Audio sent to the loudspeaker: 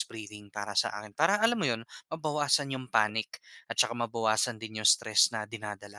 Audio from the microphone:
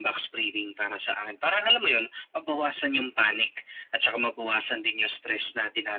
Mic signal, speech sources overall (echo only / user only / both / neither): echo only